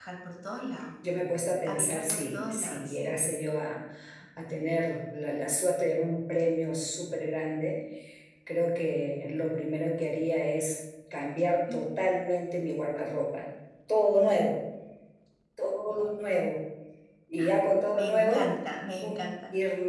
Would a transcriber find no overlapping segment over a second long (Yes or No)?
No